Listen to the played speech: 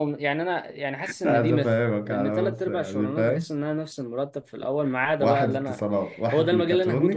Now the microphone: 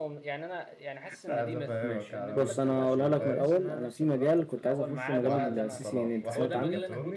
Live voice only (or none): ماشي بص انا هقولها لك من الاول انا في مجال كنت عايز اخشه مجال السي سي ان انت سمعت عنه